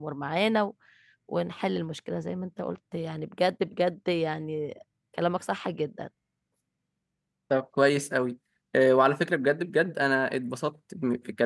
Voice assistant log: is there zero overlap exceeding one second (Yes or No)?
Yes